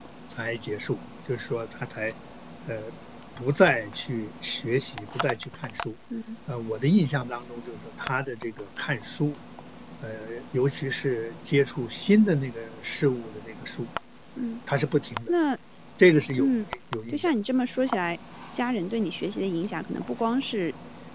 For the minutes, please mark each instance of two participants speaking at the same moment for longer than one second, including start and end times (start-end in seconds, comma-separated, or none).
none